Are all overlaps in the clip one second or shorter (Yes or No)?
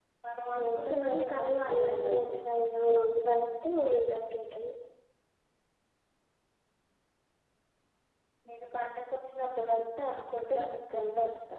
No